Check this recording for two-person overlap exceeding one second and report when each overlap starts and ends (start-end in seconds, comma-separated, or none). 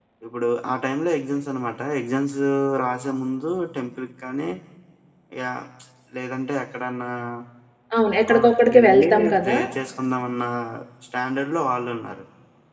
8.3-9.6